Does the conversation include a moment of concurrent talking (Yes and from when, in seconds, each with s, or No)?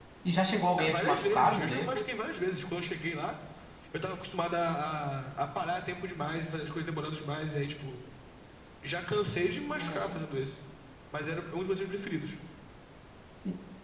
Yes, from 0.8 s